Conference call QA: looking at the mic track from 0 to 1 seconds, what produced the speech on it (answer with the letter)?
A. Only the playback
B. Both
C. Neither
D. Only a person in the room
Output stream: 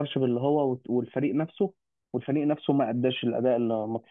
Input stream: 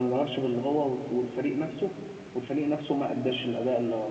A